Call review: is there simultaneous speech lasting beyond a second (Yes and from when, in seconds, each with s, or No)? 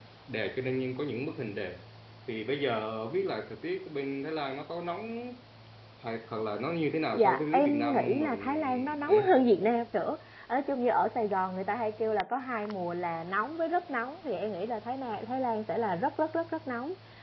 Yes, from 7.1 s